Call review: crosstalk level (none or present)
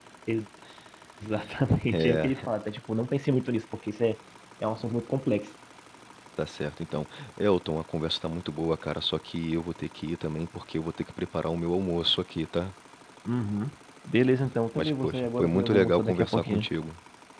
present